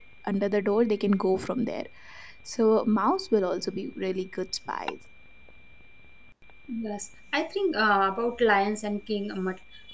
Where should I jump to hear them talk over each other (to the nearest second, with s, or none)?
none